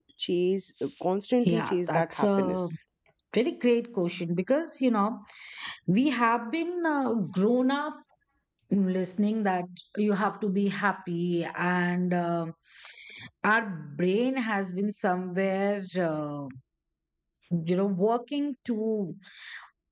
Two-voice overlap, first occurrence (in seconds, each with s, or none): 1.4 s